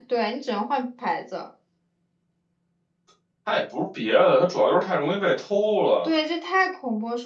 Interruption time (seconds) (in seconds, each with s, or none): none